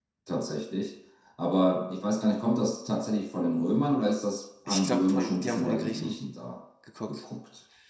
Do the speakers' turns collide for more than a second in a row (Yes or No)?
Yes